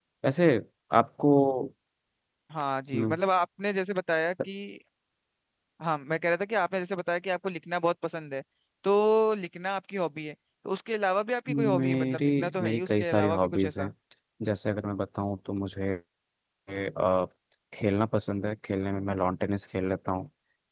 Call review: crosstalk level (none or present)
present